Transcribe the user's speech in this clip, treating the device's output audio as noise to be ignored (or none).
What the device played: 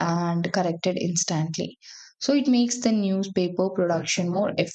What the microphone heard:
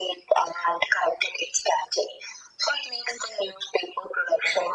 none